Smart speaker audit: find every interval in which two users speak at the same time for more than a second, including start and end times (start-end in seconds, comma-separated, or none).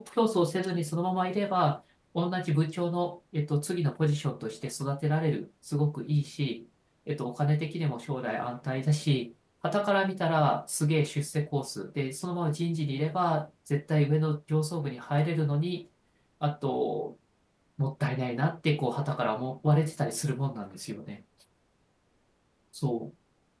none